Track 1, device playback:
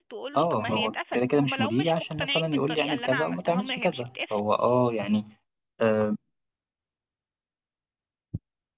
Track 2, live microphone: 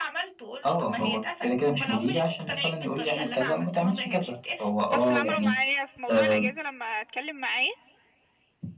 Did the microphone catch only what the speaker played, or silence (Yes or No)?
No